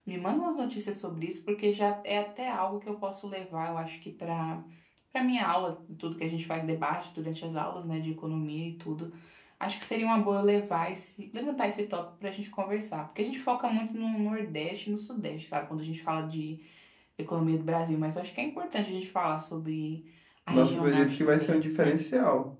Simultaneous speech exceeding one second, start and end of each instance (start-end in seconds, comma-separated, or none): 20.5-22.0